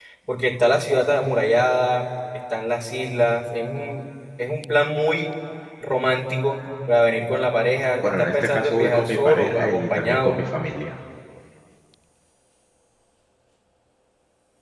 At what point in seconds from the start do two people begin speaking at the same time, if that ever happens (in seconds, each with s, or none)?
8.0 s